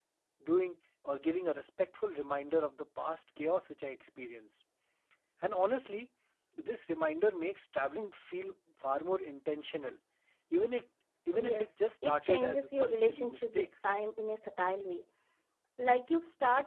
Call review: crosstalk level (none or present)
present